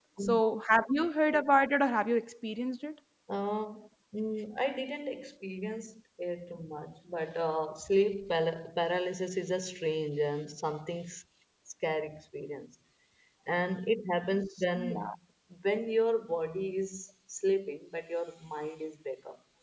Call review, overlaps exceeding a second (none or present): none